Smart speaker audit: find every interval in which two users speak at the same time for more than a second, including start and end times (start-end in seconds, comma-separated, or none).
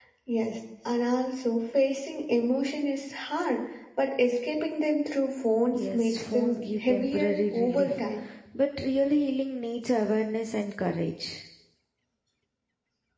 5.7-8.0